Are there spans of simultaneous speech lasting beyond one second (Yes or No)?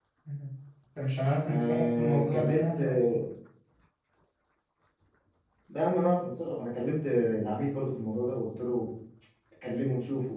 Yes